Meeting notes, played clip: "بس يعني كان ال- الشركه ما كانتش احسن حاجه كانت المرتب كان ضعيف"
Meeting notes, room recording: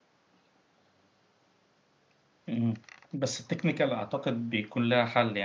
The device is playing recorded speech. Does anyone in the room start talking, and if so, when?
2.5 s

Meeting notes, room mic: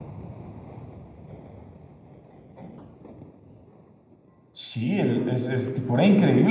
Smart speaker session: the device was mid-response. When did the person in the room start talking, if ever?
4.5 s

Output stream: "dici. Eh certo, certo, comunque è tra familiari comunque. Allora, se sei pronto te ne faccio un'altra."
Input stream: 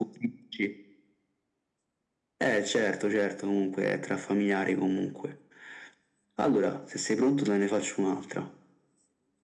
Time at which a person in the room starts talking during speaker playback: none

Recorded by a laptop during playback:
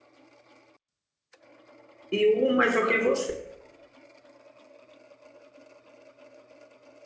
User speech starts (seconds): 2.1 s

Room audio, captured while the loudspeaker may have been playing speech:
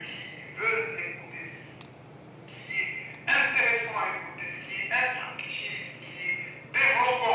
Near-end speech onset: none

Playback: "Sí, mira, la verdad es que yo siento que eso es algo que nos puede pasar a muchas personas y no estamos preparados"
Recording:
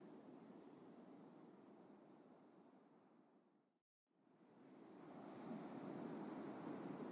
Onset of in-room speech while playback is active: none

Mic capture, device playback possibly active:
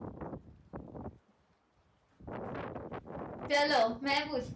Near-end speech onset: 3.5 s

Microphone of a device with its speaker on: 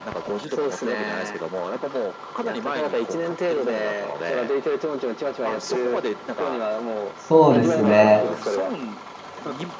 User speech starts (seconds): 7.2 s

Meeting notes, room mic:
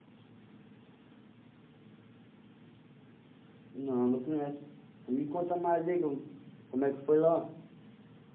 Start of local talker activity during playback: 3.7 s

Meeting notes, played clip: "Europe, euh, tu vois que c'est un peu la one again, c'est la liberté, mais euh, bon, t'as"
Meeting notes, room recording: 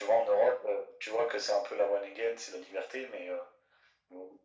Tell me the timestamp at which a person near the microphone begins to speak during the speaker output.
none

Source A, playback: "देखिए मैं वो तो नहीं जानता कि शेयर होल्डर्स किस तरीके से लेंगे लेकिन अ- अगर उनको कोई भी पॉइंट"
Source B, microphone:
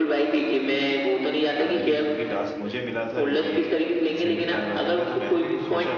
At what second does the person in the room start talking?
1.6 s

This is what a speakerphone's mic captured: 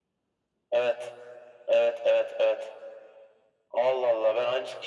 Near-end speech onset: none

